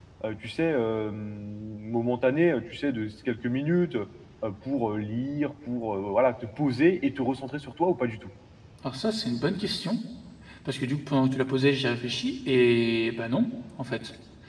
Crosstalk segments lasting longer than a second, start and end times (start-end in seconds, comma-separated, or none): none